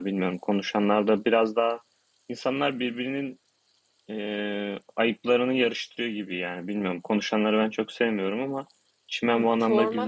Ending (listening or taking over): taking over